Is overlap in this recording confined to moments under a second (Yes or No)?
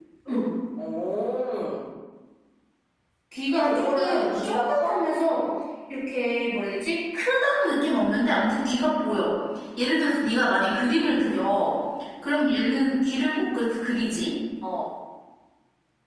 No